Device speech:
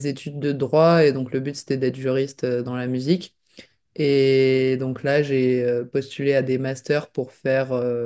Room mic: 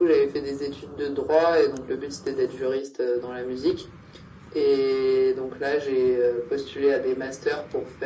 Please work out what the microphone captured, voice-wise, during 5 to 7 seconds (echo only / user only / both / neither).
echo only